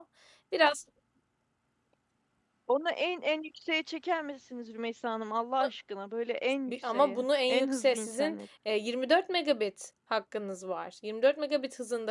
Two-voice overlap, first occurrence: 6.7 s

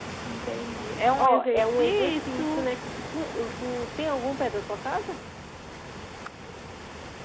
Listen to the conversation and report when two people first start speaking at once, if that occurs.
1.2 s

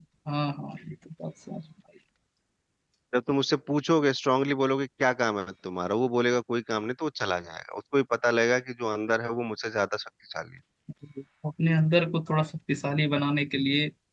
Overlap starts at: none

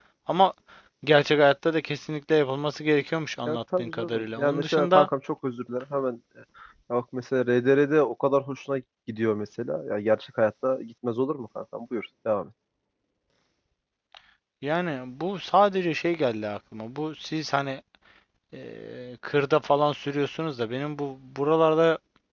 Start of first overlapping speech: 3.5 s

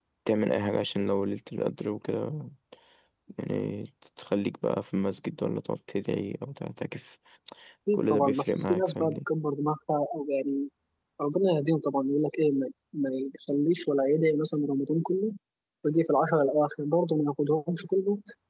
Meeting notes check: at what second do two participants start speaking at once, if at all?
7.9 s

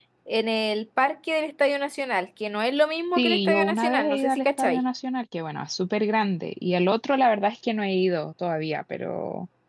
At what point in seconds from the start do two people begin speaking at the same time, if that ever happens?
3.2 s

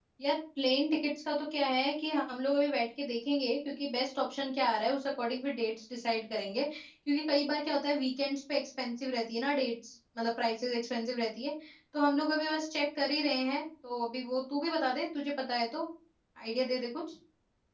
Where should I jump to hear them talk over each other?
none

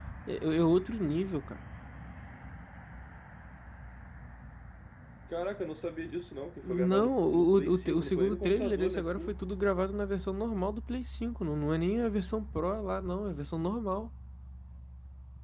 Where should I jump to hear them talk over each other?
6.6 s

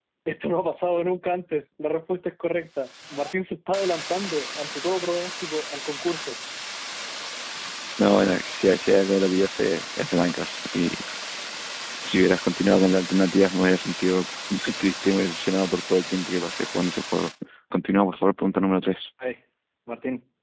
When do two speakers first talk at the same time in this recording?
none

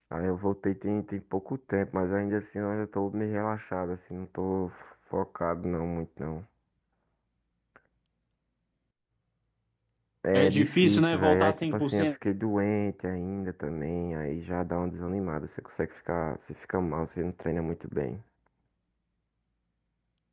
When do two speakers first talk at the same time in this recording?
10.3 s

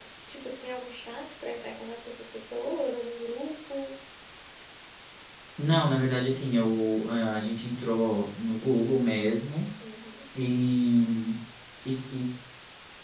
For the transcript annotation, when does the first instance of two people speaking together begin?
none

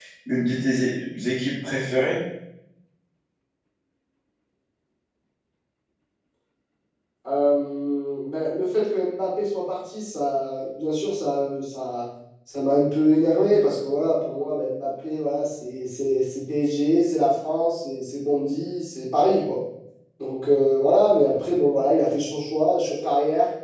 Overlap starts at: none

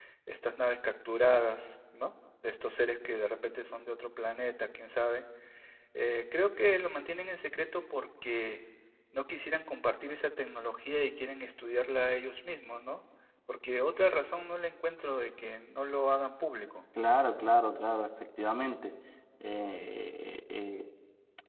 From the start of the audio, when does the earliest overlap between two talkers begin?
none

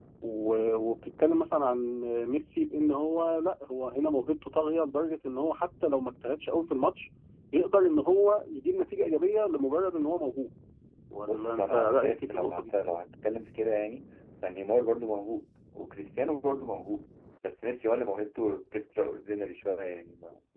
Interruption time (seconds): 11.3 s

